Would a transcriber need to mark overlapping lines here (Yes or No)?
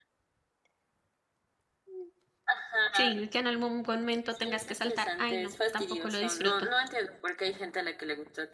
Yes